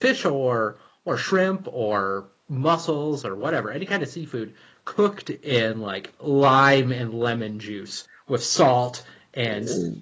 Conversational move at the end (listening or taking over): listening